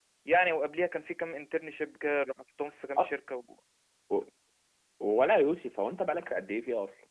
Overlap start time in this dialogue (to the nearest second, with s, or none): none